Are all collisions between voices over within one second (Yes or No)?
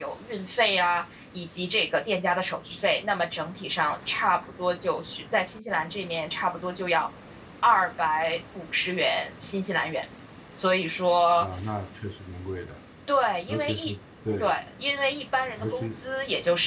Yes